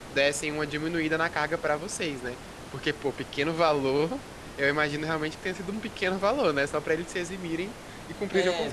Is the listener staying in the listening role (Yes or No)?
No